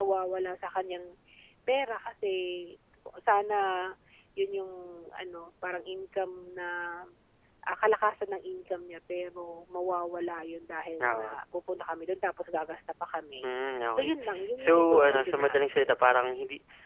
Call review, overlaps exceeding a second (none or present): present